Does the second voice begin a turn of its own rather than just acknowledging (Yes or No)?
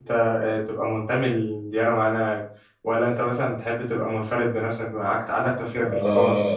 Yes